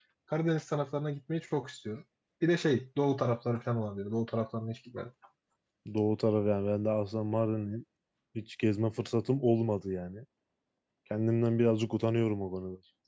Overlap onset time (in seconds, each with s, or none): none